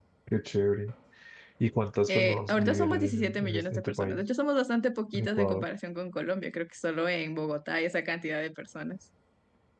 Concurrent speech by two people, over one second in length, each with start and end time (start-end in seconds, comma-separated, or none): 2.1-4.2